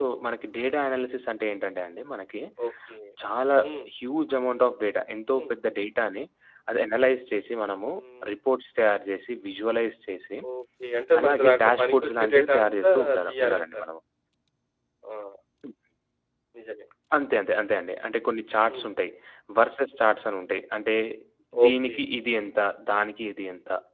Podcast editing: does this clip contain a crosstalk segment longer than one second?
Yes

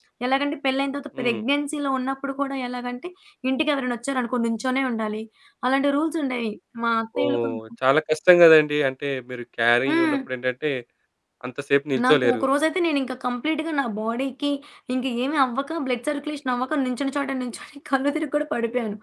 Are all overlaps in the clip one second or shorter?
Yes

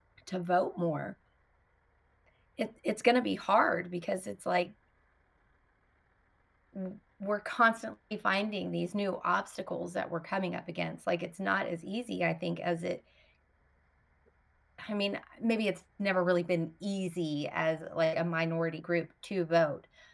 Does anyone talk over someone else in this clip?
No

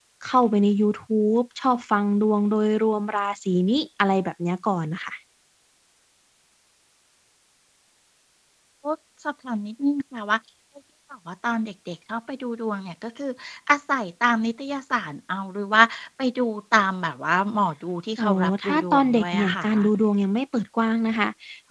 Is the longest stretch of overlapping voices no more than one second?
No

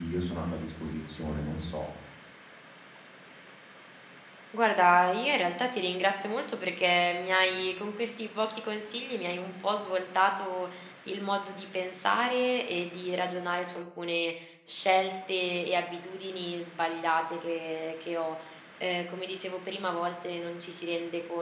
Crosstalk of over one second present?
No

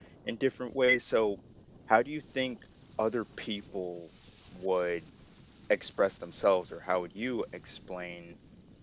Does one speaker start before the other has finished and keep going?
No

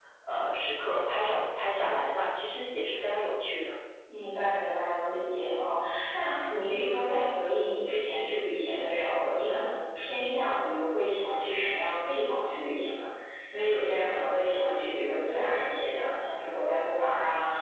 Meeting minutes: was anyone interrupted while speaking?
No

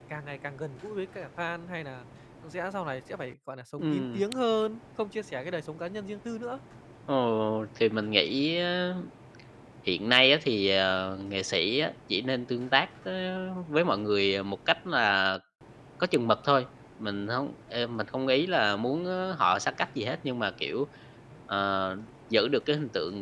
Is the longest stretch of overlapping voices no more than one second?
Yes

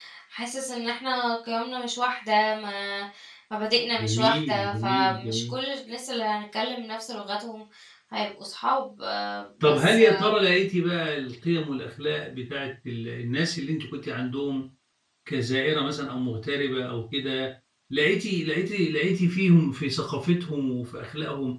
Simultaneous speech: Yes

